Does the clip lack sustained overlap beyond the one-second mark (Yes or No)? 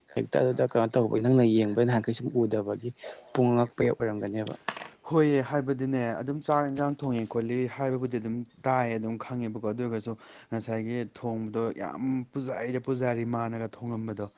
Yes